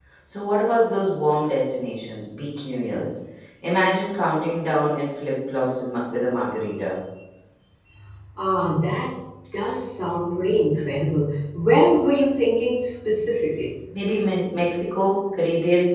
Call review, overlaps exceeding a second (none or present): none